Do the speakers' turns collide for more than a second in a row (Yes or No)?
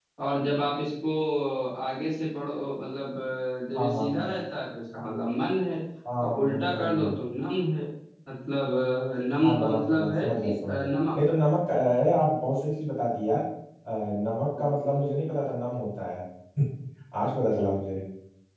Yes